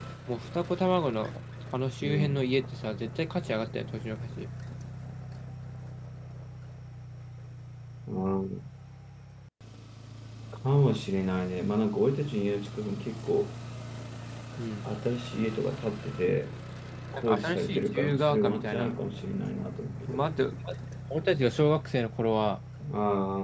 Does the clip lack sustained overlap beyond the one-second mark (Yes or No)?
No